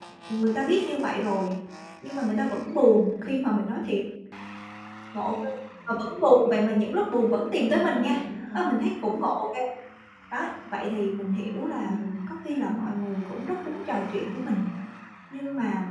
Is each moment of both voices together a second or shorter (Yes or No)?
Yes